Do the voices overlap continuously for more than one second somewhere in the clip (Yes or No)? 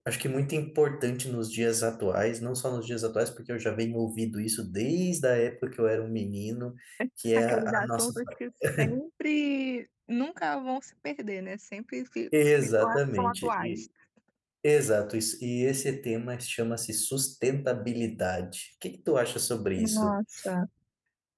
Yes